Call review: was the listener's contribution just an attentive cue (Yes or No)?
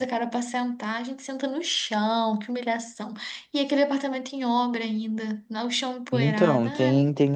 No